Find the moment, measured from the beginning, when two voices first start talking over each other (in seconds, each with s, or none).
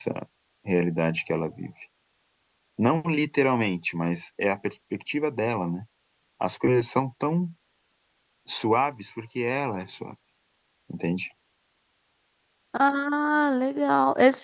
none